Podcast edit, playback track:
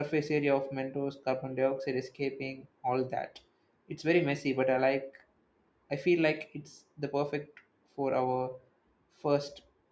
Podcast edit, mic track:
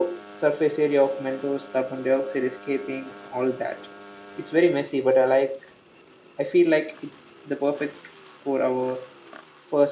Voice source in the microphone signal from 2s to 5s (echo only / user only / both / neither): echo only